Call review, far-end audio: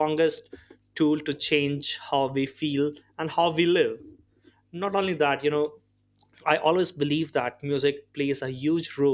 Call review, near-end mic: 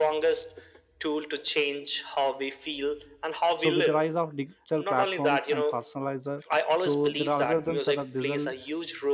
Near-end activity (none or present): present